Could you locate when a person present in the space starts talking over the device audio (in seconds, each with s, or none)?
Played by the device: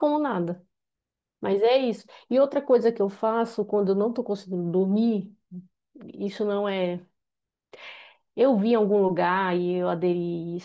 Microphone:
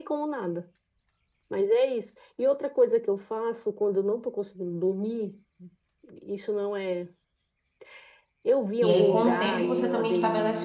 8.8 s